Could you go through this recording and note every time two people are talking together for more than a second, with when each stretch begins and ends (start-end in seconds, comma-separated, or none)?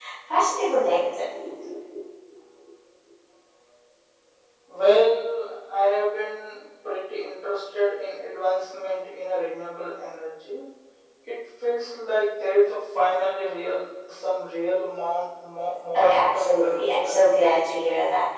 15.9-17.3